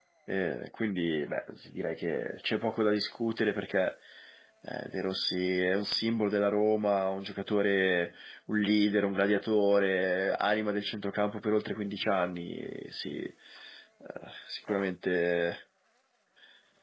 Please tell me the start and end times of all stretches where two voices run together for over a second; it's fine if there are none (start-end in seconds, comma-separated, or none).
none